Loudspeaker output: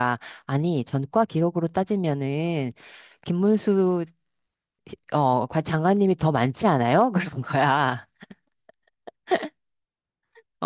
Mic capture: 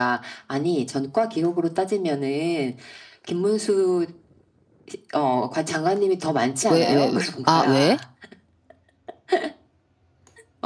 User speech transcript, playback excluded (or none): 왜, 왜, 왜, 아, 왜?